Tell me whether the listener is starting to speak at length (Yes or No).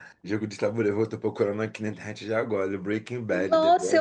Yes